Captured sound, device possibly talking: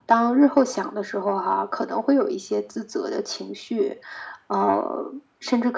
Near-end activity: none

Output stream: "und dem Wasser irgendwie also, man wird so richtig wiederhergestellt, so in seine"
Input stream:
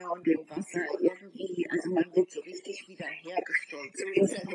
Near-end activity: none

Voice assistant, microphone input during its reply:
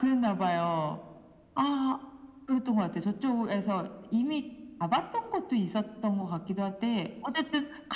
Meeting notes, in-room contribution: none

